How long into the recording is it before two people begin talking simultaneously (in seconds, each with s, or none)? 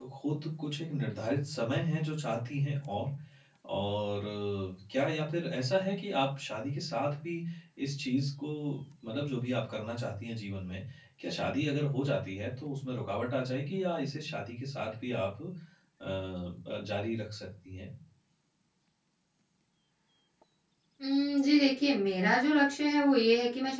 none